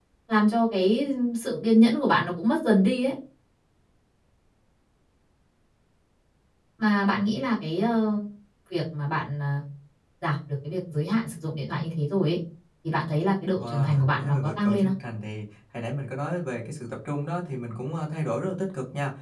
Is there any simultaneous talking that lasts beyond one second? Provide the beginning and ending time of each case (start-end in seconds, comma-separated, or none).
13.5-14.9